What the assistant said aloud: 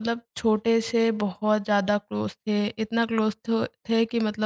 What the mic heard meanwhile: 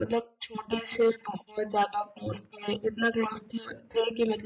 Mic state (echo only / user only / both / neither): echo only